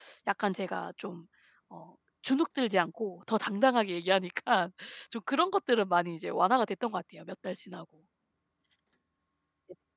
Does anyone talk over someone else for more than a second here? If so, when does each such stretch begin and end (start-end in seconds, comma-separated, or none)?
none